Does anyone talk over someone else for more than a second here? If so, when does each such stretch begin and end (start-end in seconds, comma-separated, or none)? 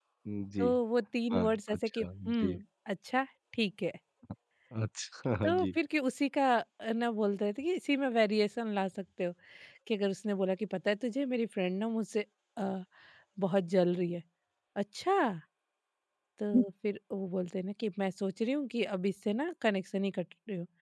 1.3-2.5